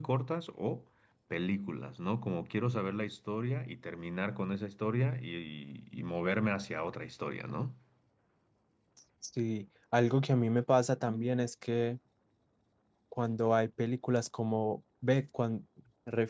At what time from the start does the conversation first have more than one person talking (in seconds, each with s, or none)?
none